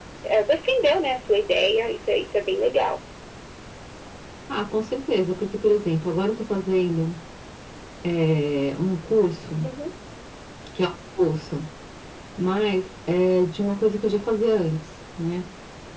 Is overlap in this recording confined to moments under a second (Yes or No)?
Yes